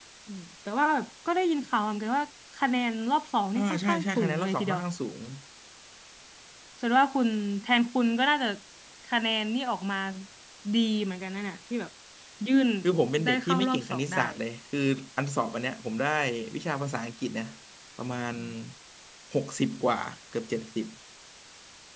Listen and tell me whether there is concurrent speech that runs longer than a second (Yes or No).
Yes